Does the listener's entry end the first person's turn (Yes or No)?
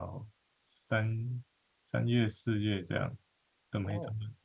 Yes